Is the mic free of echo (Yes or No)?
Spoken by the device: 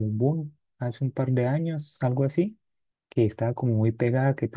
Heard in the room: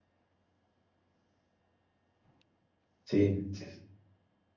Yes